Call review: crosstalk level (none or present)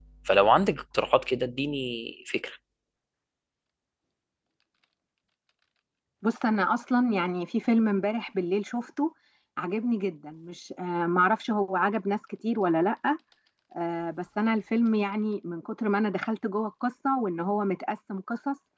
none